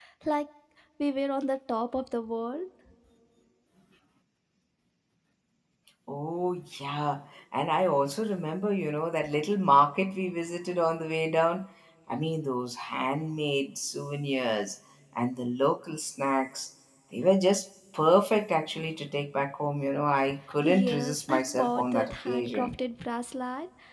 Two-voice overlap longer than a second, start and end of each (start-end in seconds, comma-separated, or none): 20.6-22.7